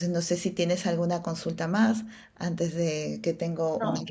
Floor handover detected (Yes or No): Yes